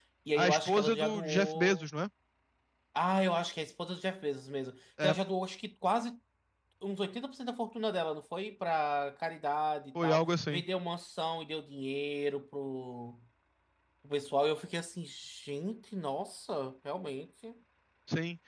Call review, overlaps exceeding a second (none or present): present